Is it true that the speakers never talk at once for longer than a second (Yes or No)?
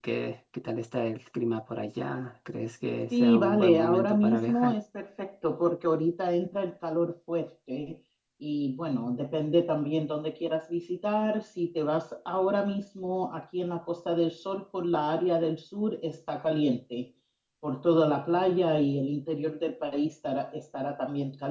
No